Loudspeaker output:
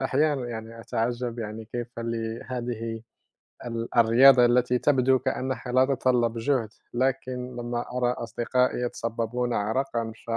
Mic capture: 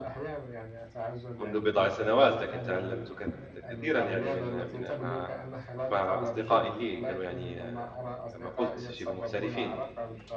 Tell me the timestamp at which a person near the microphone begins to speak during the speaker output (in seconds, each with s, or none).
1.4 s